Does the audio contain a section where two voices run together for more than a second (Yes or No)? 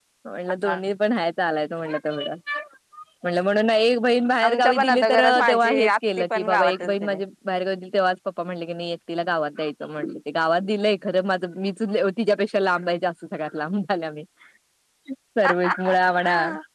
Yes